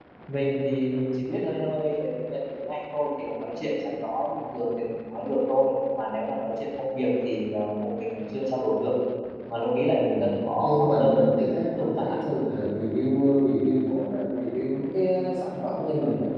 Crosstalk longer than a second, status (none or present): present